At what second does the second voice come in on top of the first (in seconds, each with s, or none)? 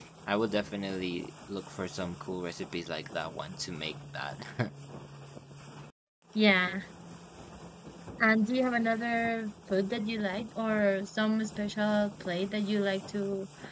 none